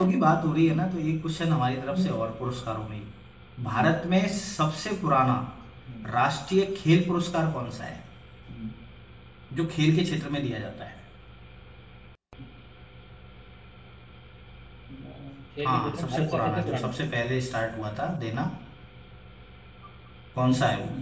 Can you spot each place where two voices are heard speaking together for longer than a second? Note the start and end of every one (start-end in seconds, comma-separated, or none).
15.6-16.9